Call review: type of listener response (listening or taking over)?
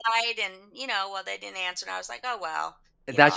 taking over